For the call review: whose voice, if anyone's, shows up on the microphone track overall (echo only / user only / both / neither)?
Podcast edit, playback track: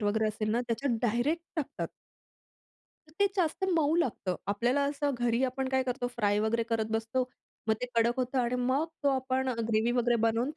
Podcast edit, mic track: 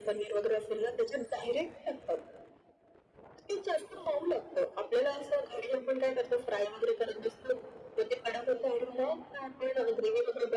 echo only